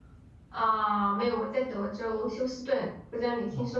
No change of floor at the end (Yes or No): No